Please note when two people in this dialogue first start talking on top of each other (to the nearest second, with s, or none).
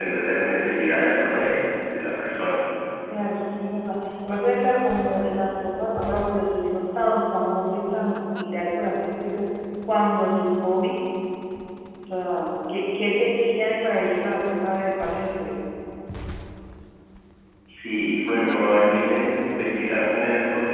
none